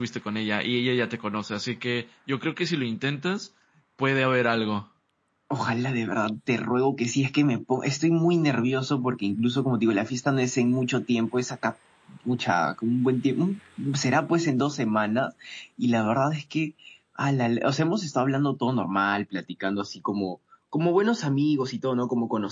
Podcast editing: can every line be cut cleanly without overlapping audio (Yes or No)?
Yes